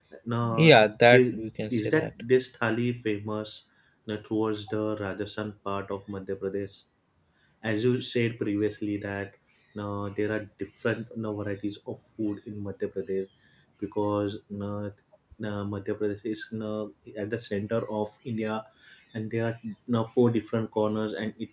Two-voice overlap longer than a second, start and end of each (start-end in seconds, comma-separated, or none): 0.6-2.1